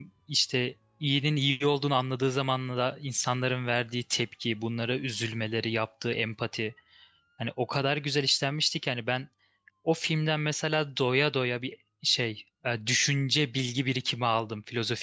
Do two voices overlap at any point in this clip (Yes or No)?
No